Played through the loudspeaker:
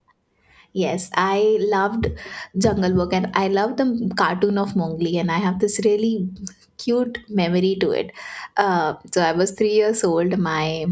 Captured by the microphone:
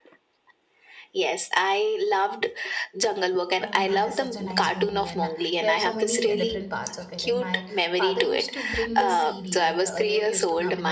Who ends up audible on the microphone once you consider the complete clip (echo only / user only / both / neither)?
both